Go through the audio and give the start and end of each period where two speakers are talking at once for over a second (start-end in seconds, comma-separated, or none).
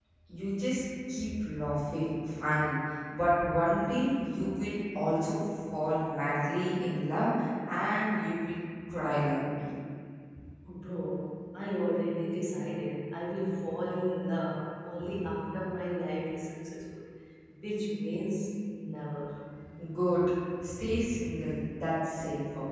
none